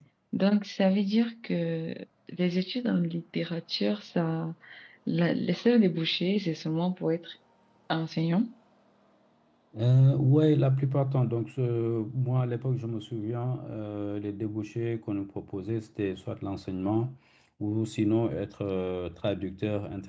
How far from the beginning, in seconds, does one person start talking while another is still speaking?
none

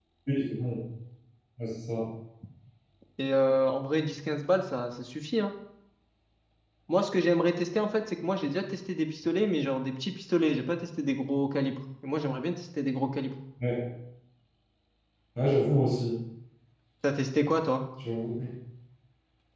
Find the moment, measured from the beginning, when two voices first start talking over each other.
none

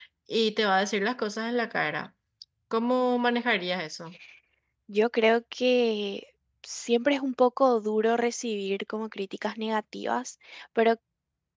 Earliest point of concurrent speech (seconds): none

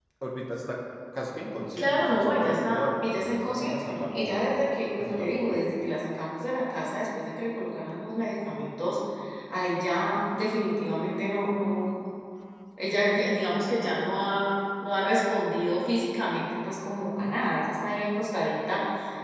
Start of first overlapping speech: 1.8 s

